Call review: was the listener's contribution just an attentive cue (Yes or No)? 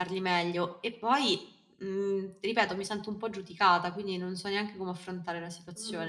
No